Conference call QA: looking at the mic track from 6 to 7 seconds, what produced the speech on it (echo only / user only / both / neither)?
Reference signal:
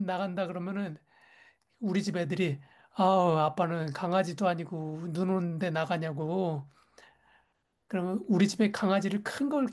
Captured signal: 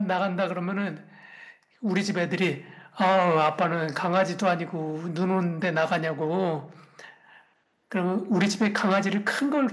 echo only